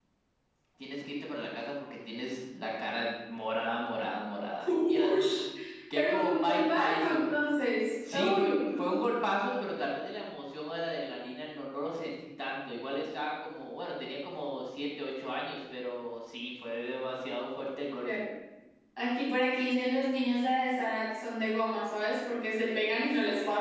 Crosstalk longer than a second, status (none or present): present